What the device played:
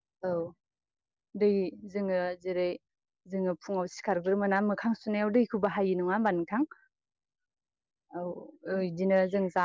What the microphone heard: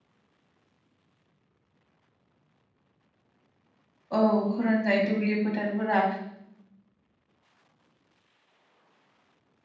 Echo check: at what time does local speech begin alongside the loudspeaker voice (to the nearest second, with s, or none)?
4 s